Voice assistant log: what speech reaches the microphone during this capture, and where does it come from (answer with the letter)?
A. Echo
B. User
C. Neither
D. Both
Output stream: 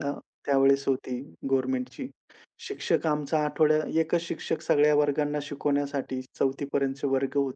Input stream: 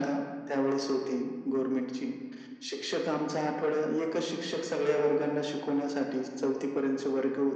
A